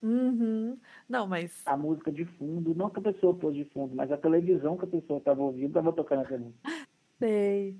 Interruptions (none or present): none